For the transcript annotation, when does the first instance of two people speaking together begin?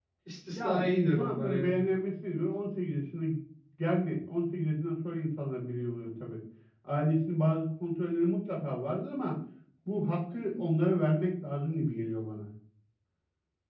1 s

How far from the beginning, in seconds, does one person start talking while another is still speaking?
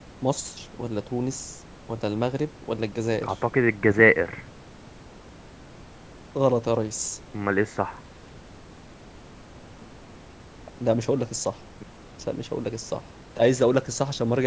none

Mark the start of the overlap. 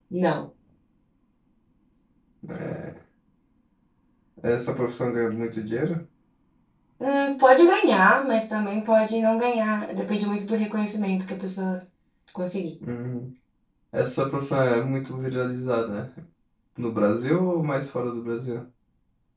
none

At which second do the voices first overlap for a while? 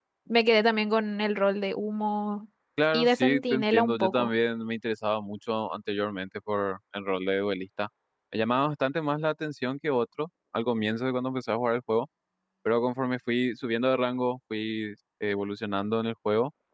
3 s

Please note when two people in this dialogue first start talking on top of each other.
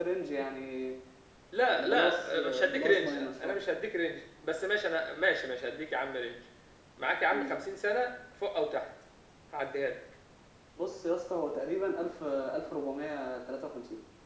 2 s

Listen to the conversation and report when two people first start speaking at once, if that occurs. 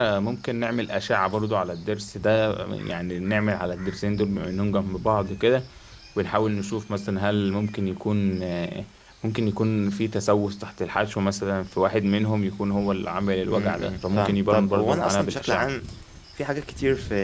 13 s

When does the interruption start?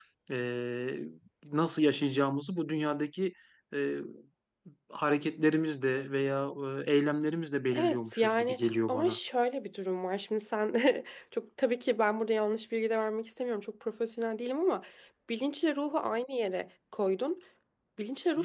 8 s

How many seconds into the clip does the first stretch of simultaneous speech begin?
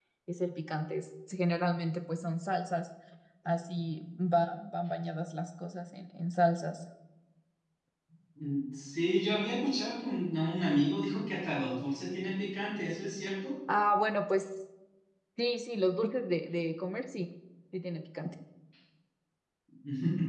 none

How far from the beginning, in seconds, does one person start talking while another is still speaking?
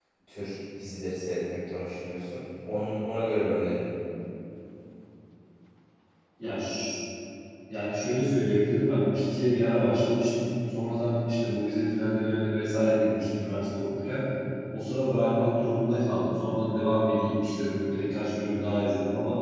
none

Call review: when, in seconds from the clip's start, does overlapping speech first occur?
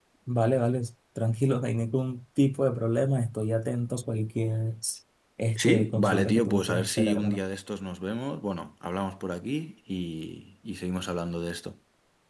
6 s

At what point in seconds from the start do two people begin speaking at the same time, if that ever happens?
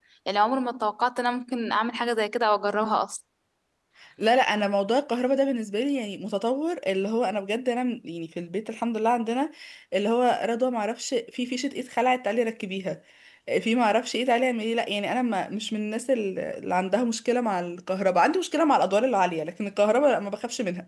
none

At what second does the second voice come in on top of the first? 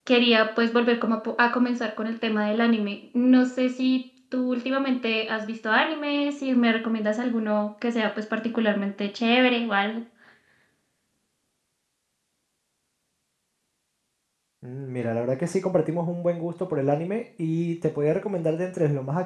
none

